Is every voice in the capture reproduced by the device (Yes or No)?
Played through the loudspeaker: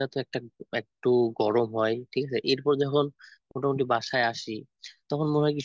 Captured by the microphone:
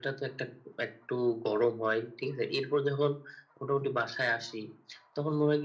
Yes